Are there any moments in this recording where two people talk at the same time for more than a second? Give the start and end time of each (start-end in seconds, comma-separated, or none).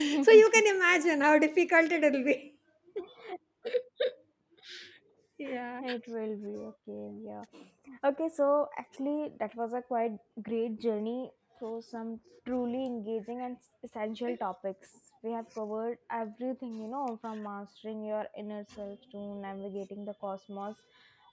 none